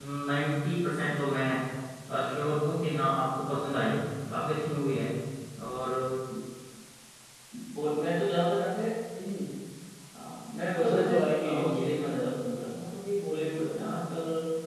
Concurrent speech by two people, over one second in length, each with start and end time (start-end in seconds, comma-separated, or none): 10.8-12.1